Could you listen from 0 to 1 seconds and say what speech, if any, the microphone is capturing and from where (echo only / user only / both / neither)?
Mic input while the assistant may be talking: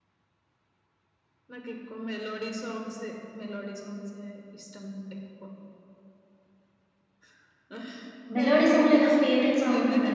neither